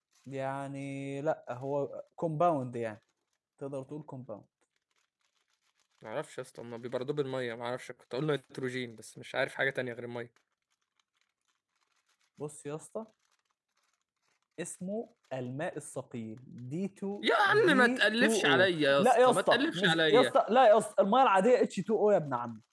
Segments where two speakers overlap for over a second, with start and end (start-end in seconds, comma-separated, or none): 17.2-20.3